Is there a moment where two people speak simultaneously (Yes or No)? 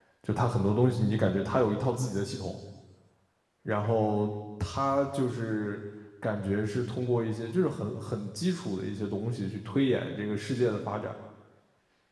No